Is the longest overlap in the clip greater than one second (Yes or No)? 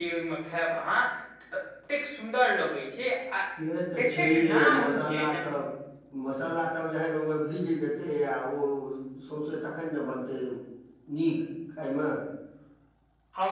Yes